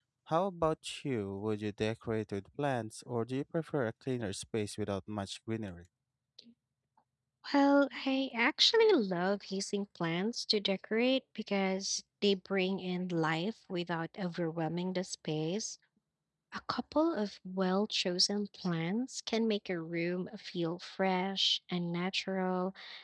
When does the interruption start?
none

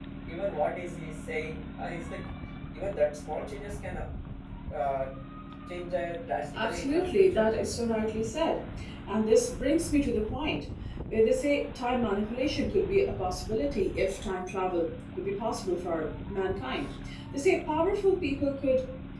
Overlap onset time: 6.5 s

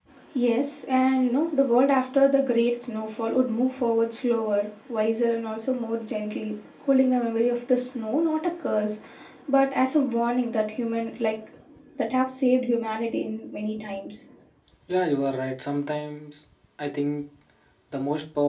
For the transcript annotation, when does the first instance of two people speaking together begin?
none

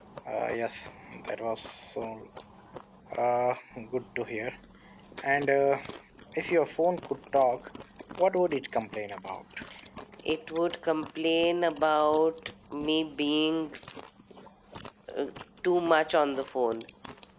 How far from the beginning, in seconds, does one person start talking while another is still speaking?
none

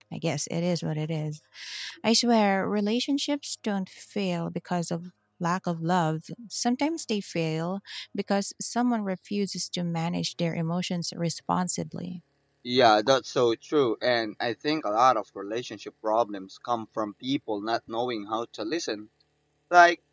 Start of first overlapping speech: none

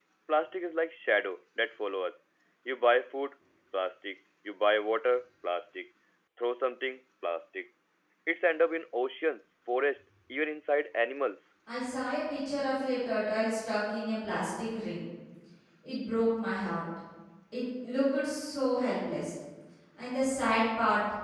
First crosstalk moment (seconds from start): none

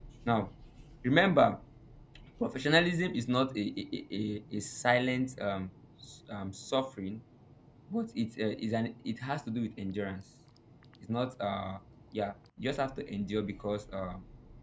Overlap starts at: none

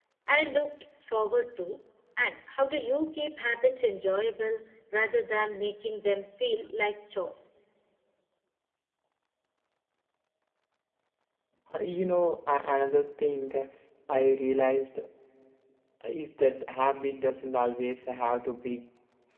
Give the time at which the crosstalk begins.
none

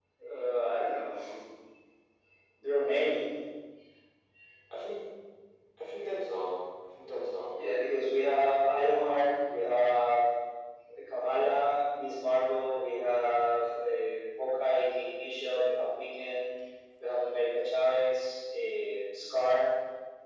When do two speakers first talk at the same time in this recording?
none

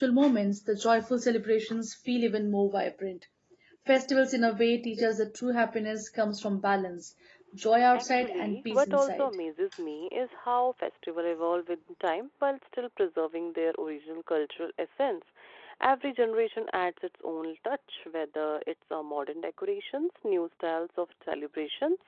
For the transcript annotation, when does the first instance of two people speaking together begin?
8.0 s

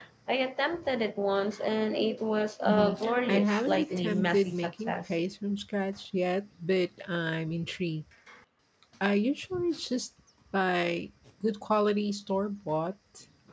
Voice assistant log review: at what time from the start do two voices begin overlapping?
2.7 s

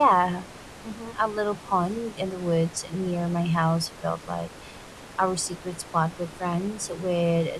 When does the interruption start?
none

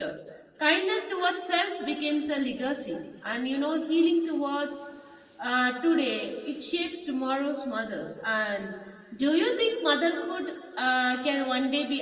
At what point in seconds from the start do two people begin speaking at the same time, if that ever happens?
none

